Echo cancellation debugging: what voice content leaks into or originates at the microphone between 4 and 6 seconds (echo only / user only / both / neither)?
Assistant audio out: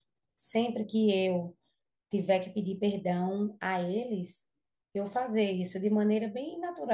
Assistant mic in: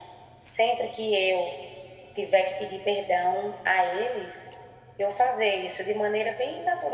echo only